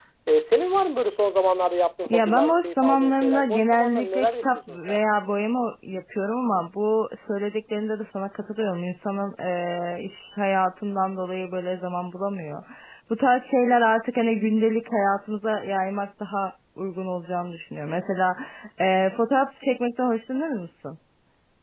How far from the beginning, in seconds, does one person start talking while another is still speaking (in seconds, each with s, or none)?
2.1 s